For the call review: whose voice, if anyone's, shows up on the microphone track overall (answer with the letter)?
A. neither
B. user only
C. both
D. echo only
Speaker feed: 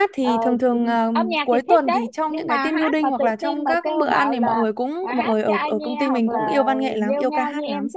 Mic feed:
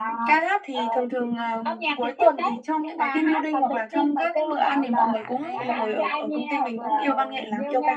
C